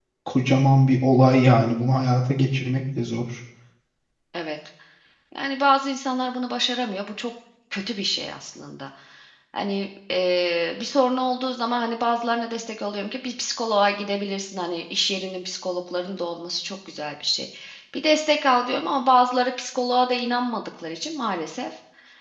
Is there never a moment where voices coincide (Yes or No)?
Yes